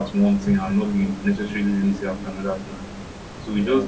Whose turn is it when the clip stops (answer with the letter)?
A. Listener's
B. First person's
B